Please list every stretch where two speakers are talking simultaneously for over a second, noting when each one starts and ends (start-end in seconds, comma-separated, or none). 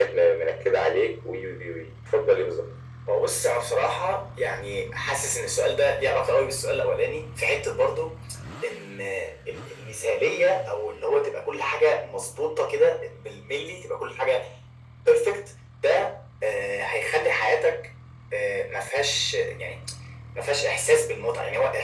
none